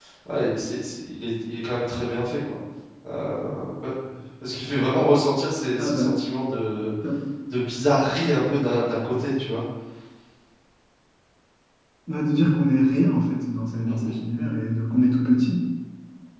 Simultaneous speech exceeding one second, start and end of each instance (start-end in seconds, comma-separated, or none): none